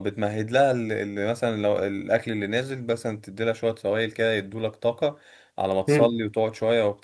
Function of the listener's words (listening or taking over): listening